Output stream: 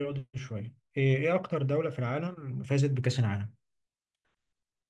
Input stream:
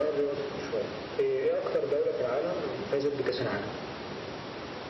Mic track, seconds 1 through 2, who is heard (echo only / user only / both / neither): echo only